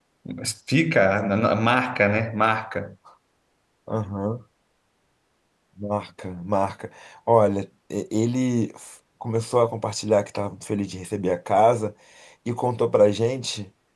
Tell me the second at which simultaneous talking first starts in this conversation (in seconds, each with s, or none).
none